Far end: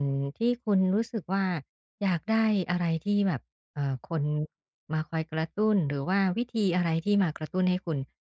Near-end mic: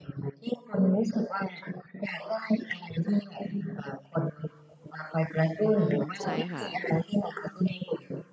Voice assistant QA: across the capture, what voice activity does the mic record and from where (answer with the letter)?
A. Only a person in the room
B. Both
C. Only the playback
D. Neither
B